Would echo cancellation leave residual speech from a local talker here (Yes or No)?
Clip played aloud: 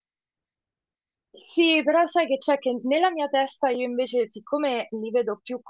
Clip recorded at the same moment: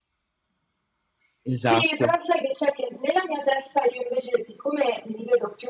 Yes